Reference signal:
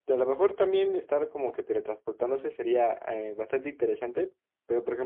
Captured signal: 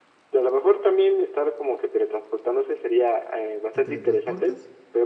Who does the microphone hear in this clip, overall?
both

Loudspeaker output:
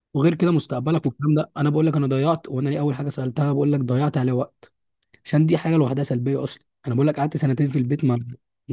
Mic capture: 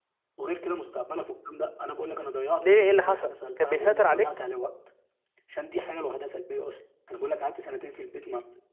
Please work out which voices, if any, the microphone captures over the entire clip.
both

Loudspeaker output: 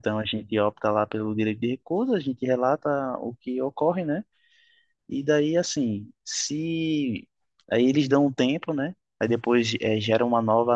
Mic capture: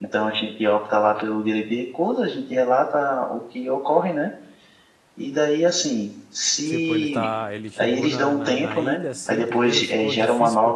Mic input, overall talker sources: both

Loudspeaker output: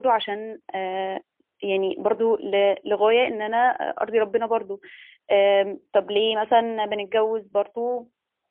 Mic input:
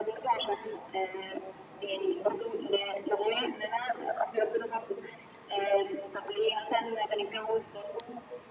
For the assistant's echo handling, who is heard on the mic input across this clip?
echo only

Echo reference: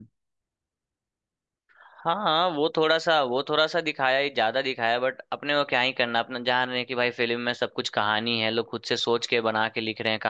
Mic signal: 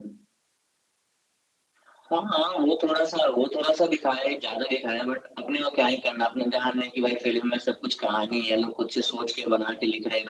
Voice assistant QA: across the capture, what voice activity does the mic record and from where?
echo only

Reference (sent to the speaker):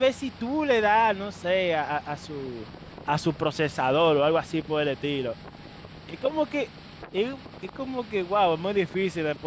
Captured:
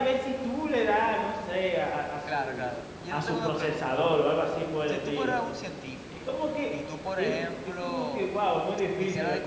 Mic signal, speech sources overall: both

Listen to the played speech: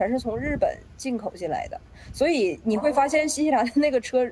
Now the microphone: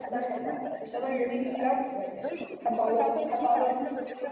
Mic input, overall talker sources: both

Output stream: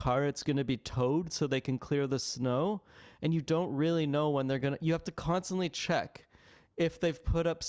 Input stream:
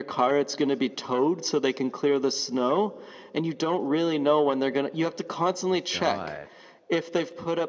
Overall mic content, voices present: both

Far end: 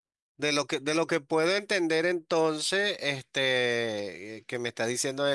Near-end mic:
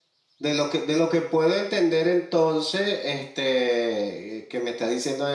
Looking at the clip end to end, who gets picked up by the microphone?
echo only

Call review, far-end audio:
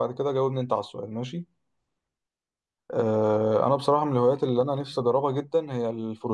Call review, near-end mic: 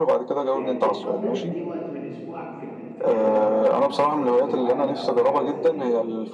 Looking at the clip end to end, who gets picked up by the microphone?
both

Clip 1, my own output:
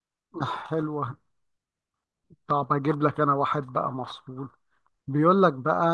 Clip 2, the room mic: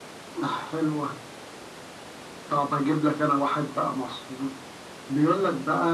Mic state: echo only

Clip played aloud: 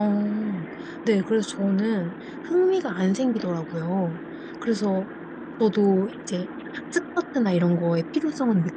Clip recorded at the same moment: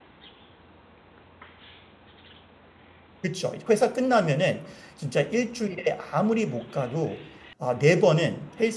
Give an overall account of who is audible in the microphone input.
user only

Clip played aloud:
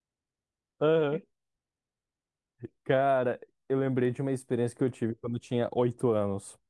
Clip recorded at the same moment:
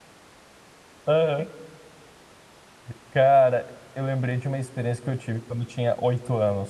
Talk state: echo only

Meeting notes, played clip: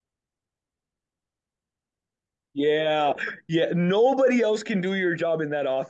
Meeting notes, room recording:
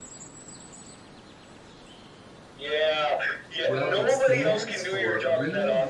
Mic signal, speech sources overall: both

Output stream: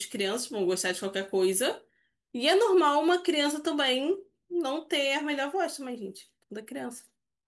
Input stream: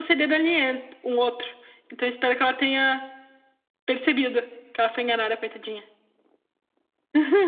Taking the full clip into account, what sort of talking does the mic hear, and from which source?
user only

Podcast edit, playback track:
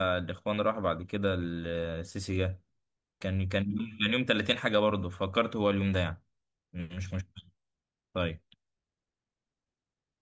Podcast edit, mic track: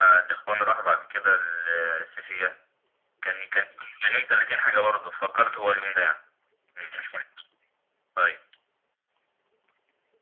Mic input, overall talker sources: echo only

